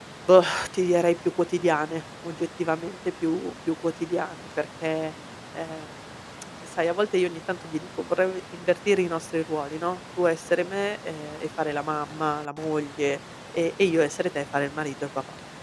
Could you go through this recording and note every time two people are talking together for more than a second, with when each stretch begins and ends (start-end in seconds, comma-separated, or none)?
none